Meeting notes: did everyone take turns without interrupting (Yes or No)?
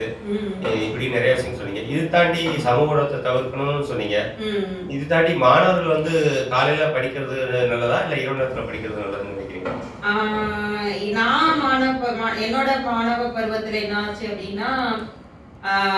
Yes